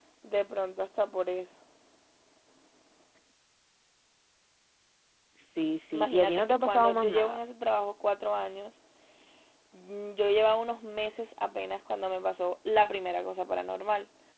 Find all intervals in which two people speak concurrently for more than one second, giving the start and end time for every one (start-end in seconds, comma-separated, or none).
5.9-7.4